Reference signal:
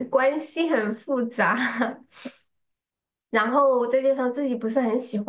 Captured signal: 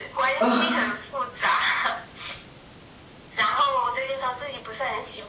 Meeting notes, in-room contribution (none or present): present